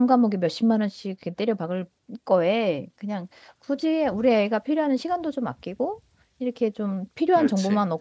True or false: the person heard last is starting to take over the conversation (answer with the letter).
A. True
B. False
B